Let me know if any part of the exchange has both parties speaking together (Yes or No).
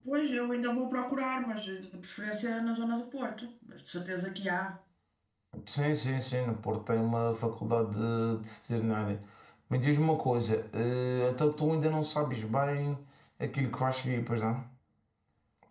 No